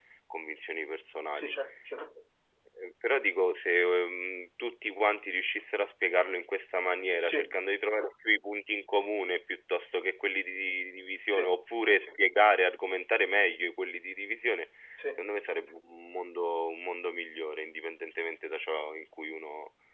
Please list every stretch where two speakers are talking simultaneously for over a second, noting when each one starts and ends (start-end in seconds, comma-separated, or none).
none